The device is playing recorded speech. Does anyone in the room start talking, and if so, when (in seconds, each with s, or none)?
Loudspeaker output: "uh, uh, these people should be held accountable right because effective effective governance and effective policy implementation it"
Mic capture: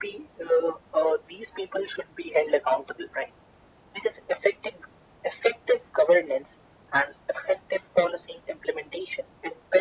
none